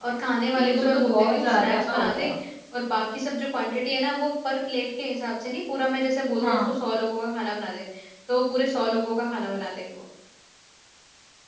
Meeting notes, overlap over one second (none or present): present